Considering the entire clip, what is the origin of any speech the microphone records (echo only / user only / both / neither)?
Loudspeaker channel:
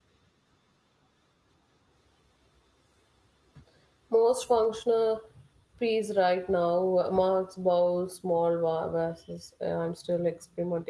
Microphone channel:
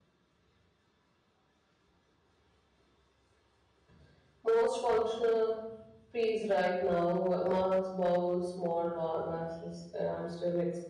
echo only